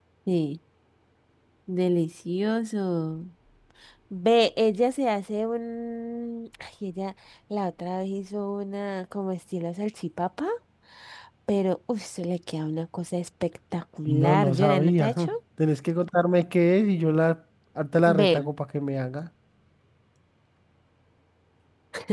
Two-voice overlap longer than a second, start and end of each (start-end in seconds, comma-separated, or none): 14.1-15.3